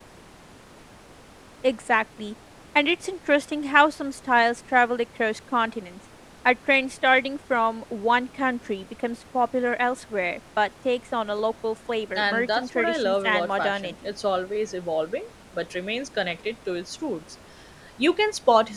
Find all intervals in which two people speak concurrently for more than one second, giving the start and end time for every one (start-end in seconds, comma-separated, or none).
12.2-13.9